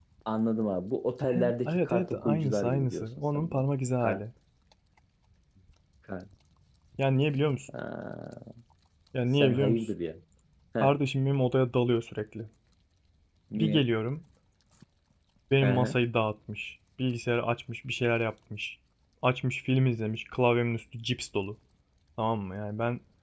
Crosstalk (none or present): present